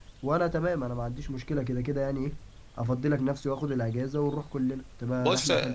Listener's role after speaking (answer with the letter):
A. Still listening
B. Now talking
B